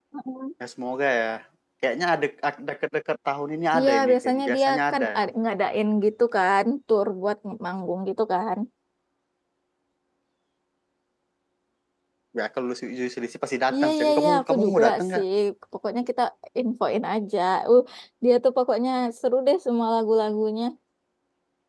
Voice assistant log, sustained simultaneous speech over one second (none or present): present